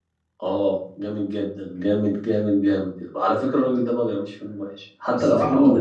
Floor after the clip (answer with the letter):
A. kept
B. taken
A